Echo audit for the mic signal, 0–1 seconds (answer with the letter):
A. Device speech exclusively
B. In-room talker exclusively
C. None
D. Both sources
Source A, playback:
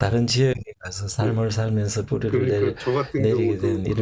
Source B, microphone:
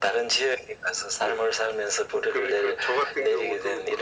A